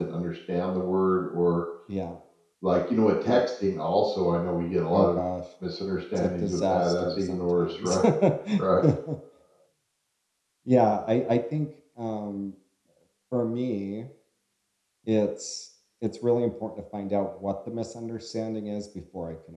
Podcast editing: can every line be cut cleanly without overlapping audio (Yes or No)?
No